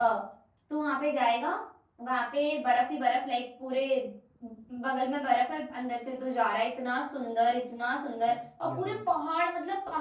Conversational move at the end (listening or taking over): listening